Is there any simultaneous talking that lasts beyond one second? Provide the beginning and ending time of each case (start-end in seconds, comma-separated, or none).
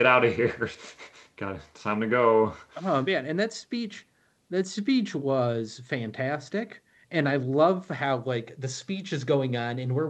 none